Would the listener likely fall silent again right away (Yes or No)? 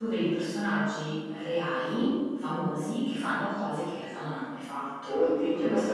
No